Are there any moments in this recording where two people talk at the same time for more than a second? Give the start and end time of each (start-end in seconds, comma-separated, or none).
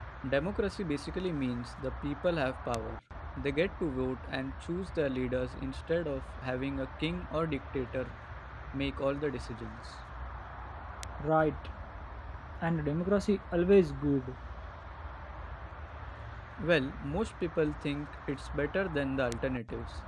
none